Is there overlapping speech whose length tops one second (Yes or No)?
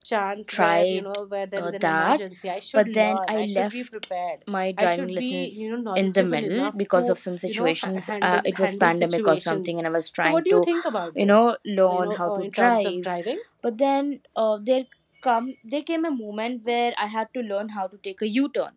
Yes